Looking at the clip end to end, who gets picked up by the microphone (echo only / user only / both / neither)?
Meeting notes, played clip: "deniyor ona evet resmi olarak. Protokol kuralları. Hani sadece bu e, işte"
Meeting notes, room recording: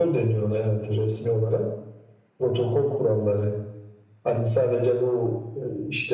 echo only